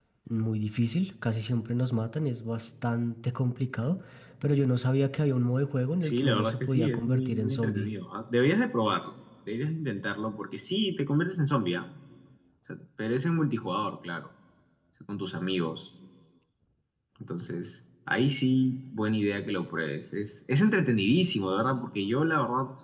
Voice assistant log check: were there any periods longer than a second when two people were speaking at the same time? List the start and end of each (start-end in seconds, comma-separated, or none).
6.0-7.9